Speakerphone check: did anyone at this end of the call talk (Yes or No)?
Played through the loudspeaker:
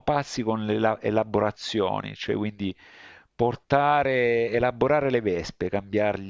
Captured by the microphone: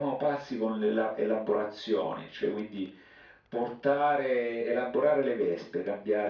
No